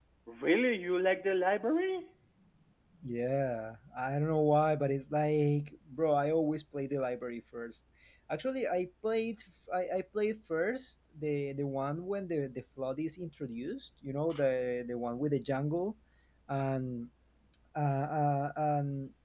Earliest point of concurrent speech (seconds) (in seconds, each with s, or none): none